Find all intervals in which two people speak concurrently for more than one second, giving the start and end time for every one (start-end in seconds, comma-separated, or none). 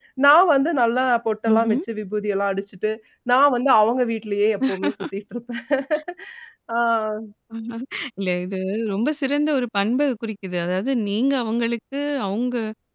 none